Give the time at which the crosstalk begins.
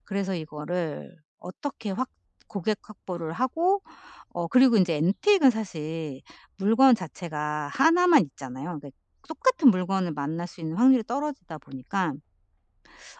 none

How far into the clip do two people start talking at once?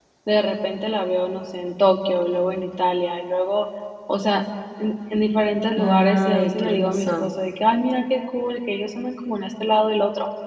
5.8 s

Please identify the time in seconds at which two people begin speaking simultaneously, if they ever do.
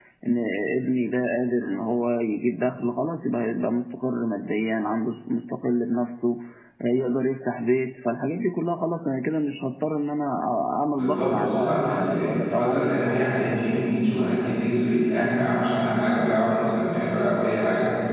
10.9 s

